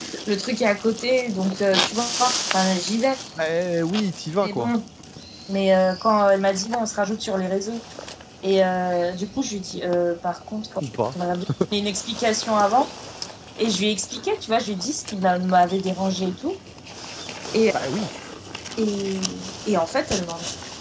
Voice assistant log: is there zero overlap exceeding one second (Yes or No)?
Yes